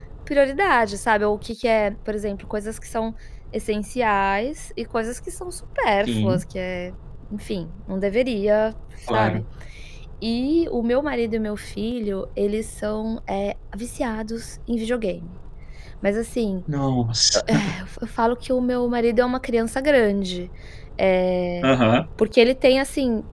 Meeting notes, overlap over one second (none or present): none